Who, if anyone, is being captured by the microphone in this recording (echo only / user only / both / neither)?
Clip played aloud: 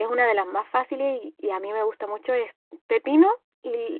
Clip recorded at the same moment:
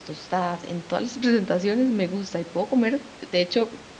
user only